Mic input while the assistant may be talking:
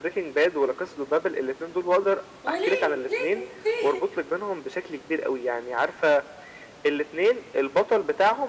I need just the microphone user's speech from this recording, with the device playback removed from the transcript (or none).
وليه ليه ليه